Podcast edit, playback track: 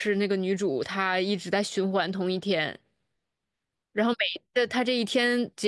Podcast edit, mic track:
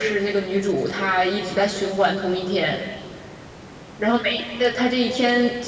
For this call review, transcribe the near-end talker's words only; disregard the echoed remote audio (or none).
none